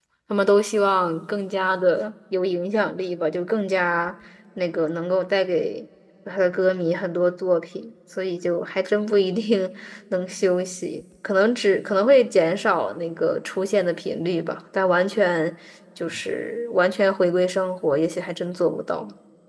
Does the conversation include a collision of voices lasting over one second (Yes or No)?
No